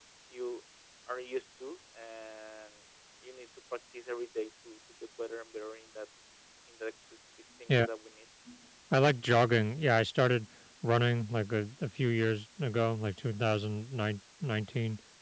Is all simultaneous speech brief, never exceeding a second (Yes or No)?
Yes